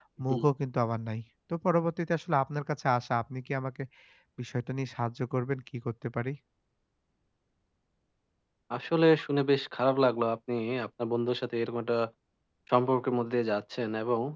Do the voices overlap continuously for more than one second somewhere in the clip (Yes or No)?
No